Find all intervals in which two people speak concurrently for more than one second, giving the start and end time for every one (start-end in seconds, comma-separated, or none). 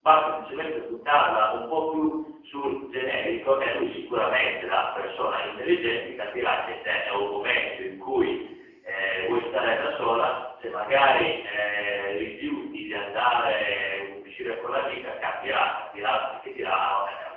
none